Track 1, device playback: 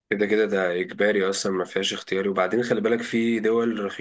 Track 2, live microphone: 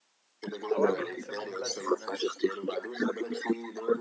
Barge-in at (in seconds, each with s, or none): 0.7 s